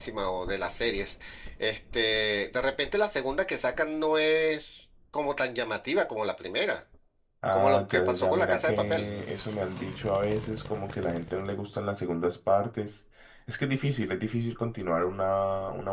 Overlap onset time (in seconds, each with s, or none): 7.5 s